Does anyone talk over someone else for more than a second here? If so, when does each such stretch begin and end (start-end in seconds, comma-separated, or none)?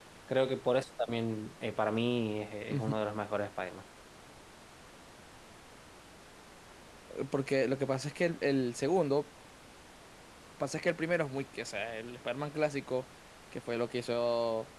none